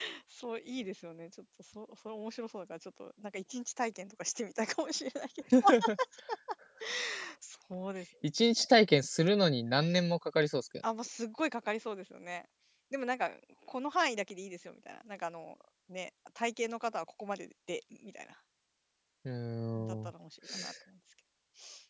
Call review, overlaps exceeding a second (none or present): none